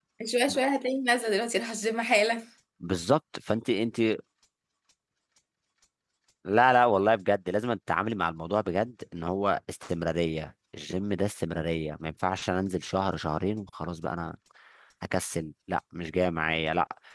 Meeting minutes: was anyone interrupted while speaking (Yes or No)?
No